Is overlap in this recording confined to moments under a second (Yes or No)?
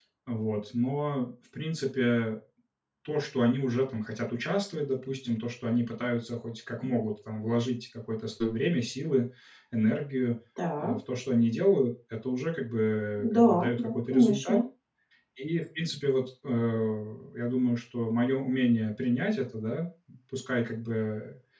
No